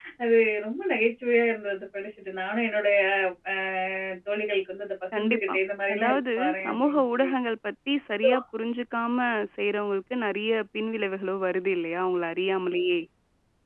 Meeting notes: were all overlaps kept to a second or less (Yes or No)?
No